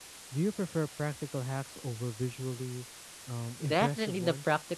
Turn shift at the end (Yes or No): Yes